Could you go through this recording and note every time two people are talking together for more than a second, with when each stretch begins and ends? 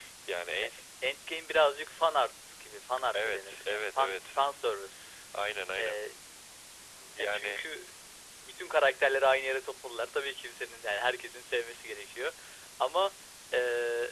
3.1-4.3

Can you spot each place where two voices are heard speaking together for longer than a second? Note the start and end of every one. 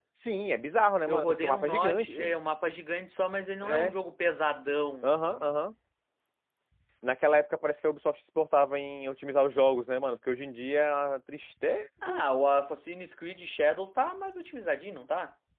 1.1-2.4

